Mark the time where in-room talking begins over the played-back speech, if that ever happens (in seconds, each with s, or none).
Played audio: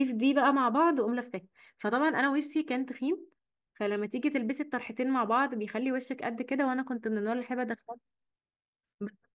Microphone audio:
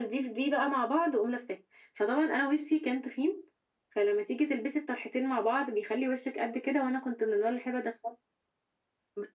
none